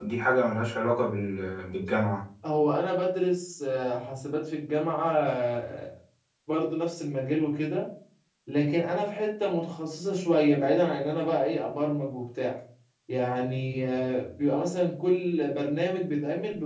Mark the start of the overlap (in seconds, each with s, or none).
none